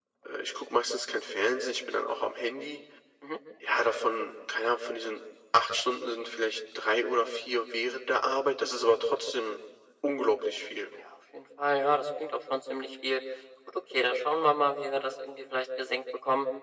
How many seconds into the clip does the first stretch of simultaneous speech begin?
none

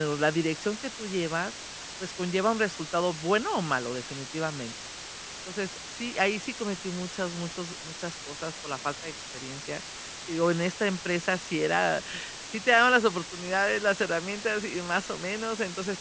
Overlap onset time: none

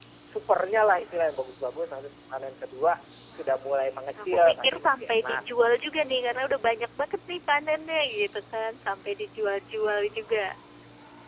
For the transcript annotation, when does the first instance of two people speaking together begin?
3.3 s

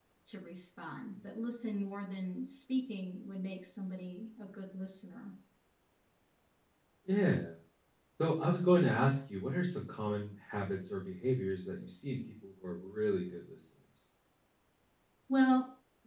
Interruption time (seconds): none

